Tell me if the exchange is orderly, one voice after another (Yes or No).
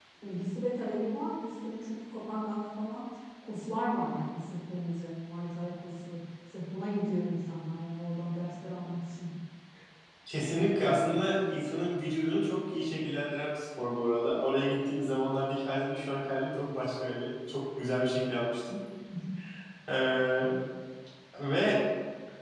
Yes